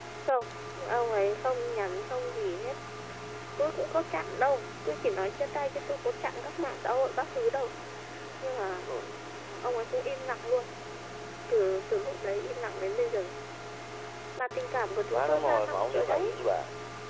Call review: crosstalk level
present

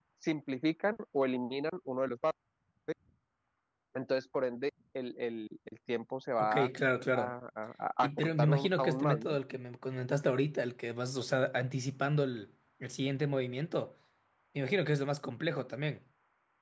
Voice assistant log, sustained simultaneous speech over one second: present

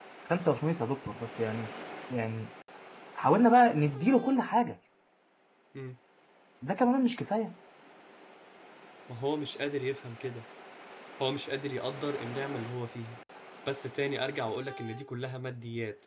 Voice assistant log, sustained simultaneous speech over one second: none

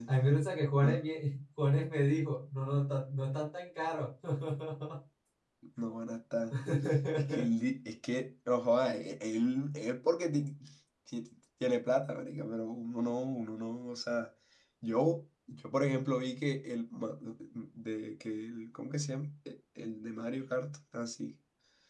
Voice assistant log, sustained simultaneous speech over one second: none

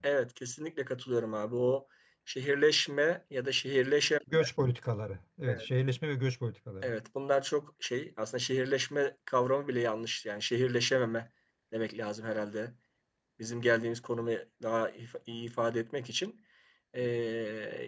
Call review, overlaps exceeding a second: none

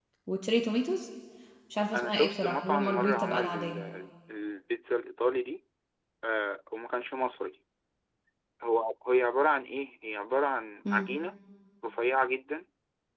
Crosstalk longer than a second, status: present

